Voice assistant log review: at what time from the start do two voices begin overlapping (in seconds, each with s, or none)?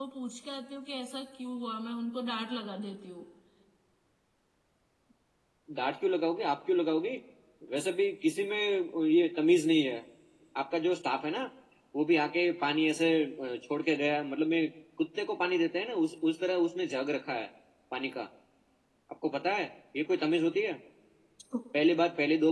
none